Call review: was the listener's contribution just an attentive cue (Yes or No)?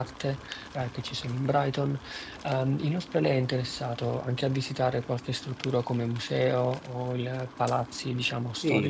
No